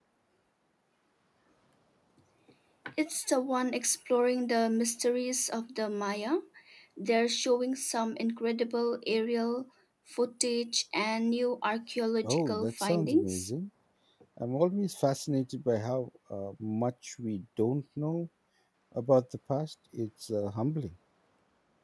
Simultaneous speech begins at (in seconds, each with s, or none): 12.2 s